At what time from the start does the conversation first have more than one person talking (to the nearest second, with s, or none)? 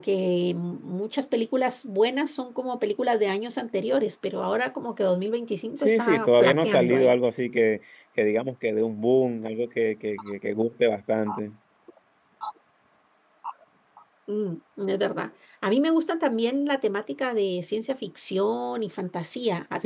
6 s